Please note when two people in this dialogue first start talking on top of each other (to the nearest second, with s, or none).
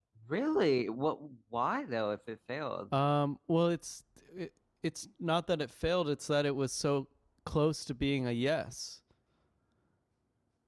none